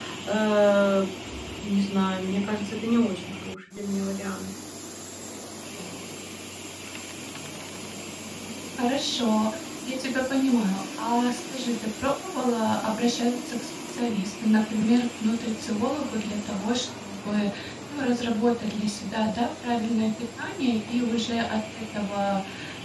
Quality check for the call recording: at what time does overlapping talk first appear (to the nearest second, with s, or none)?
none